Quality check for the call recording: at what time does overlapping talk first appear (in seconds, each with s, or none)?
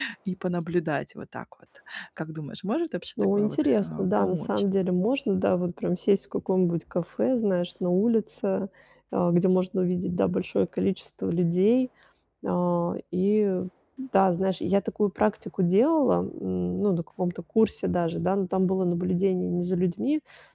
3.2 s